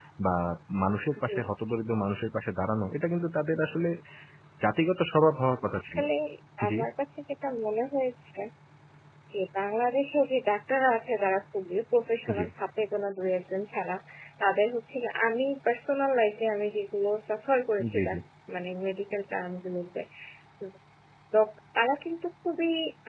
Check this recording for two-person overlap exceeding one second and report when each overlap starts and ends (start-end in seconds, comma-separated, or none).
none